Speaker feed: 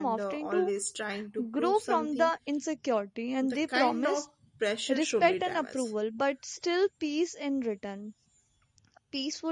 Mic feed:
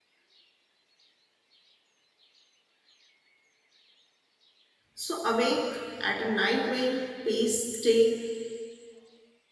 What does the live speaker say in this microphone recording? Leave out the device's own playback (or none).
So, awake at a night wind, pace, stay,